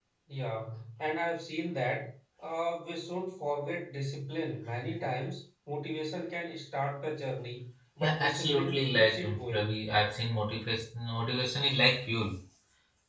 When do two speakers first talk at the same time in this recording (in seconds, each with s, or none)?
8.0 s